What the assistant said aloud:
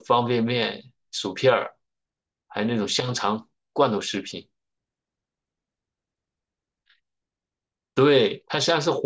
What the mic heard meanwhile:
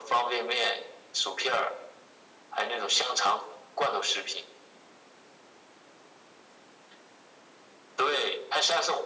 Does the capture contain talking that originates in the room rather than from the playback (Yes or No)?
No